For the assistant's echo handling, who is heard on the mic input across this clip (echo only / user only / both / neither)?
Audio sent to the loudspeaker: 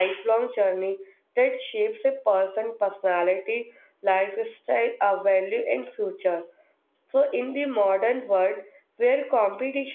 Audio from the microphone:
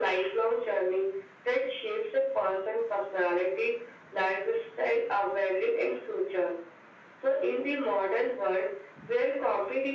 echo only